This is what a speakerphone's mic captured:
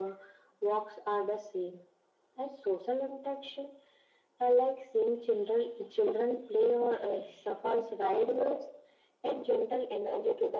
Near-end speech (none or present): none